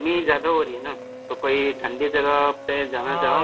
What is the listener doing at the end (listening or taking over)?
taking over